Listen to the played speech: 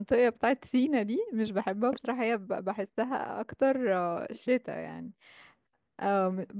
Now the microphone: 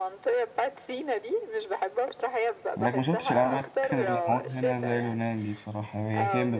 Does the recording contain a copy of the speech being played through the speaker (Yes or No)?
Yes